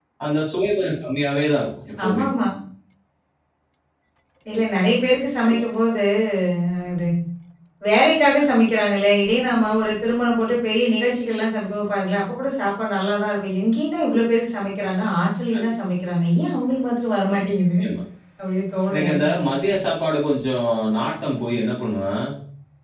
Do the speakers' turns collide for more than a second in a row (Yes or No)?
No